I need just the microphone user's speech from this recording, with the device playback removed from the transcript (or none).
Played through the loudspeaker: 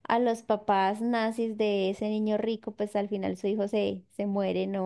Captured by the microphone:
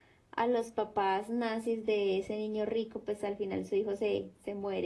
none